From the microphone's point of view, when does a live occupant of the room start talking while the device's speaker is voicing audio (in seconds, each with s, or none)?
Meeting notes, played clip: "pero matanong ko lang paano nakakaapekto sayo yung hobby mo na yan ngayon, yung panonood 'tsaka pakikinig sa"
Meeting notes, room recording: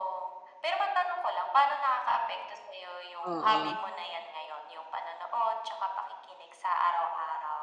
3.2 s